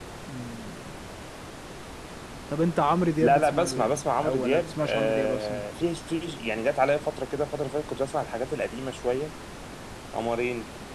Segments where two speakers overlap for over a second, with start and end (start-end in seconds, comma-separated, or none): 3.2-5.6